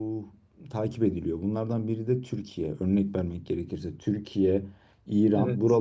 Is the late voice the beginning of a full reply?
No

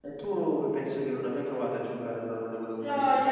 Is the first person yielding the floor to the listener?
Yes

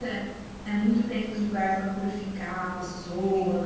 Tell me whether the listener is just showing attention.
No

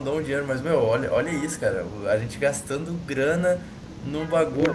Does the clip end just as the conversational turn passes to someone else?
No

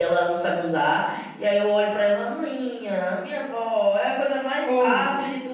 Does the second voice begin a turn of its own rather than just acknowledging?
No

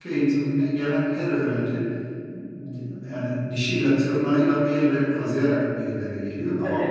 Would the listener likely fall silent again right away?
Yes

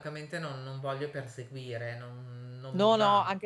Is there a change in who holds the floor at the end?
Yes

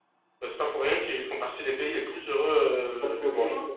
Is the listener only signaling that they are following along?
No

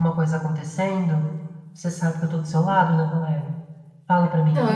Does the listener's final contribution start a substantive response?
Yes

